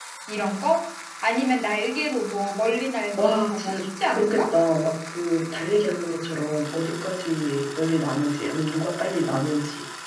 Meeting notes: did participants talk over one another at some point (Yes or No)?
Yes